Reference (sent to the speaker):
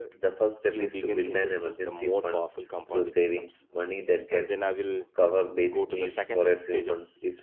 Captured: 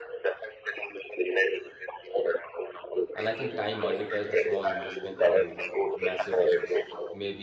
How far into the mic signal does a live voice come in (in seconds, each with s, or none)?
3.1 s